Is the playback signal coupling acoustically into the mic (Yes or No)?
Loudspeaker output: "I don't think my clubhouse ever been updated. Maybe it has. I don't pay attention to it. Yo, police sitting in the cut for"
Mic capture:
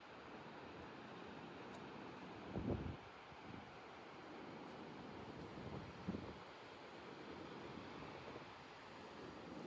No